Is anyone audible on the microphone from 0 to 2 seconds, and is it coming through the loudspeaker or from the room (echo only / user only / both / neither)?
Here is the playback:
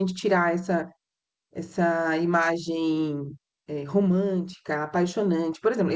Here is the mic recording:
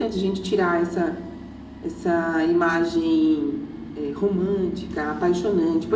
echo only